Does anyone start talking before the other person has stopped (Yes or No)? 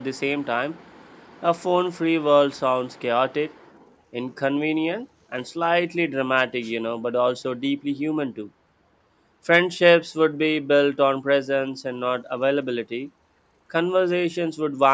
No